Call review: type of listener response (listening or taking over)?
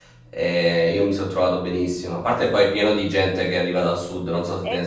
taking over